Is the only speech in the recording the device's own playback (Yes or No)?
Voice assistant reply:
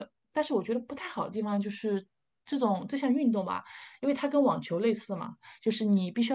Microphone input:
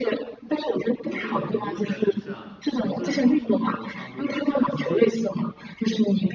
No